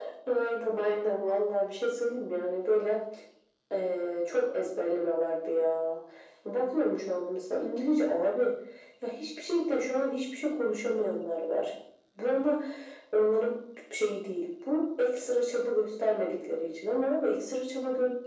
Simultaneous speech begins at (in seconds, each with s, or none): none